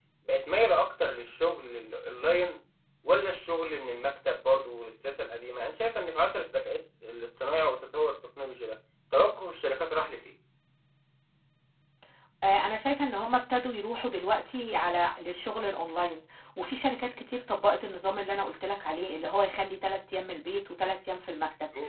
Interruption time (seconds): none

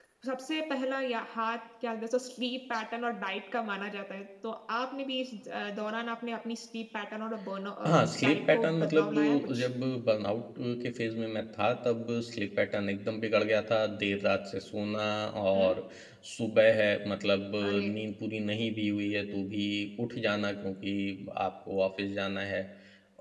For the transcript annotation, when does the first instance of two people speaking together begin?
7.8 s

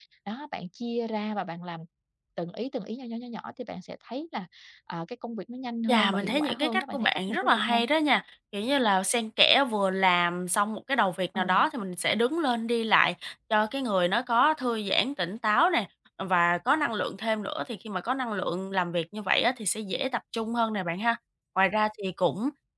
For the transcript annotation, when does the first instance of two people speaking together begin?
5.9 s

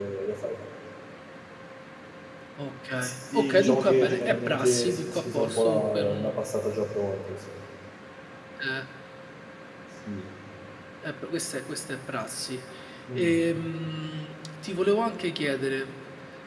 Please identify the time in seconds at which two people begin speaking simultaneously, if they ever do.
3.0 s

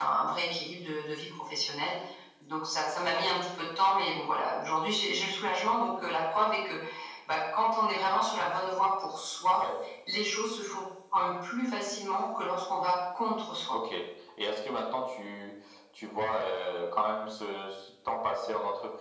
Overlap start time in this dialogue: none

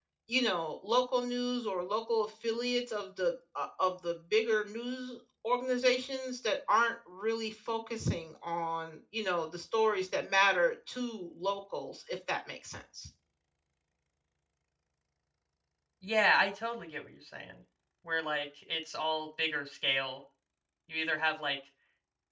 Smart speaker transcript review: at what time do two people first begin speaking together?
none

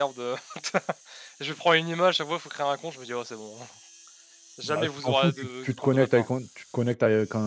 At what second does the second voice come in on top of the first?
4.6 s

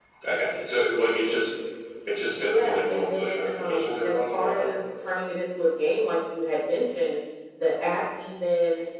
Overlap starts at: 2.4 s

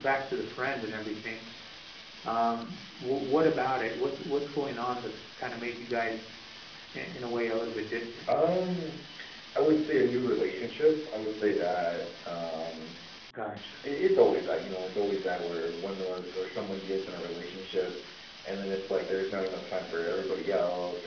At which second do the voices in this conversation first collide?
none

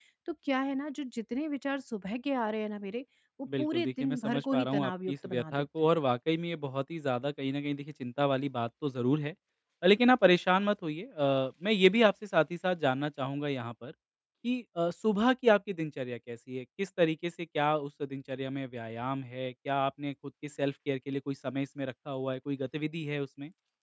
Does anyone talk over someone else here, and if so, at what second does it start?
3.5 s

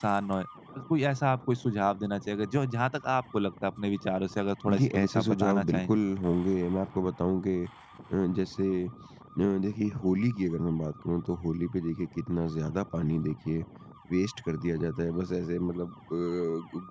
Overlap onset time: 4.7 s

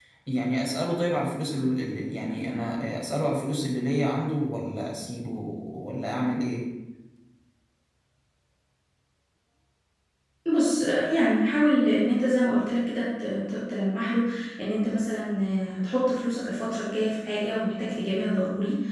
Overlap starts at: none

